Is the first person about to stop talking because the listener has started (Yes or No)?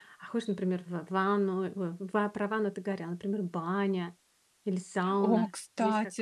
Yes